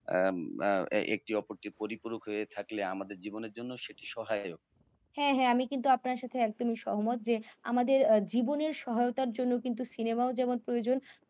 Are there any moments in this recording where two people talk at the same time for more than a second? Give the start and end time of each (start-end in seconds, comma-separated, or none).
none